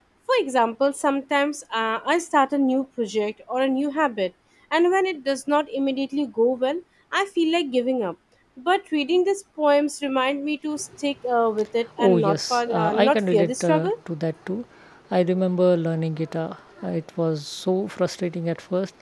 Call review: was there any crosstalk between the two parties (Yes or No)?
Yes